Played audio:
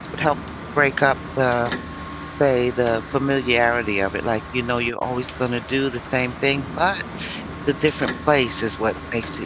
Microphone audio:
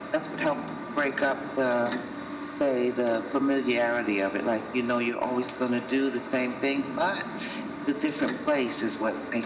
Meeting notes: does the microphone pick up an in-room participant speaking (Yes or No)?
No